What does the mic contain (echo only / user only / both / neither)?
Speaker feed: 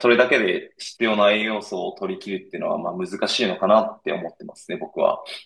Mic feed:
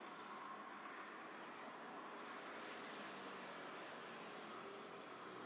neither